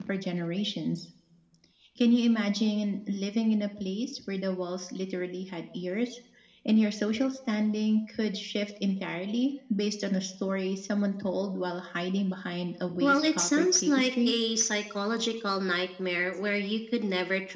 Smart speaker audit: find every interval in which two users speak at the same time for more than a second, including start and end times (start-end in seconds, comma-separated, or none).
13.0-14.3